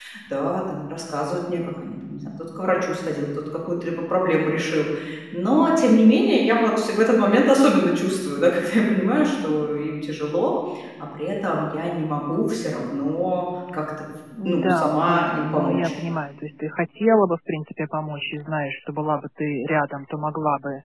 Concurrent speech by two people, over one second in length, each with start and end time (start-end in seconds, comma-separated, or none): 14.4-15.9